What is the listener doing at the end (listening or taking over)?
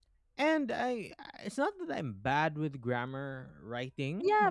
taking over